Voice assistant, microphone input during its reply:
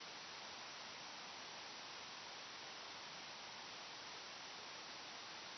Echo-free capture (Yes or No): Yes